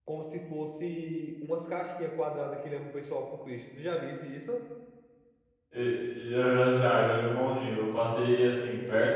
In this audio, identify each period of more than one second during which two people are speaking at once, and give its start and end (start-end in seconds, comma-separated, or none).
none